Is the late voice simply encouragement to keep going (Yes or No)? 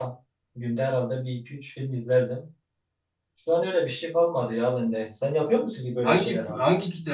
No